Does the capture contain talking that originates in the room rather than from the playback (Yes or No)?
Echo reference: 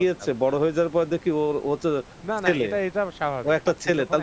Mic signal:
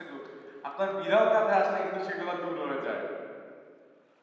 Yes